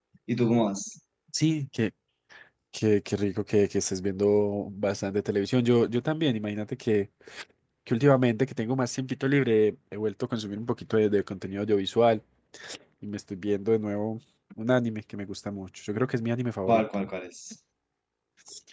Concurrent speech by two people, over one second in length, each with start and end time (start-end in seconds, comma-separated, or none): none